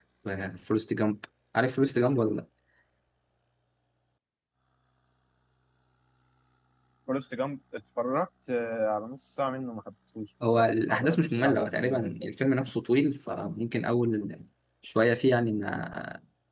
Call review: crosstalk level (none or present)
present